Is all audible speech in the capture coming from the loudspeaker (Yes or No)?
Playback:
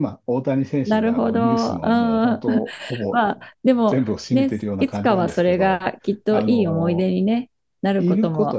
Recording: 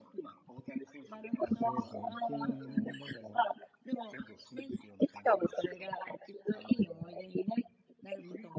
No